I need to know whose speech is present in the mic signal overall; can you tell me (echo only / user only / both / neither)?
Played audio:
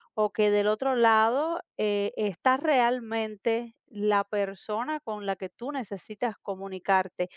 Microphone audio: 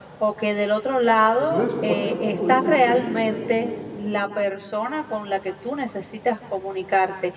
both